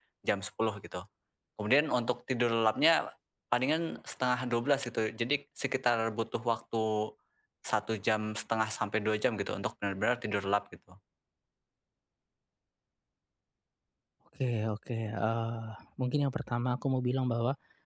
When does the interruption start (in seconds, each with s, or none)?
none